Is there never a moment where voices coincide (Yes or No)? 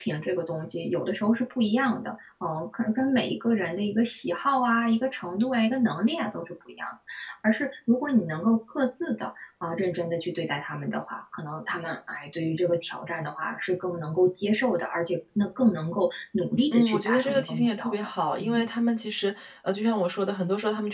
No